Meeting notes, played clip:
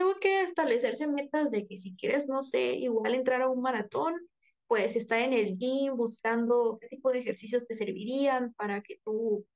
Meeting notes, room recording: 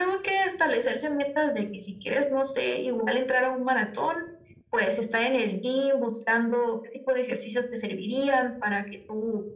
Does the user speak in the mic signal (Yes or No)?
No